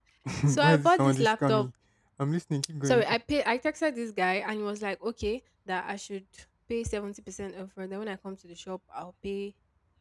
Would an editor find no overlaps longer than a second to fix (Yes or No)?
No